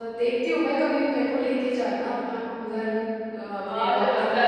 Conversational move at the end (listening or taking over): taking over